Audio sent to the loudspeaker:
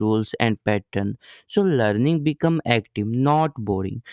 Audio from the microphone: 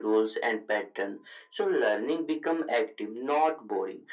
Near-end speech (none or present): none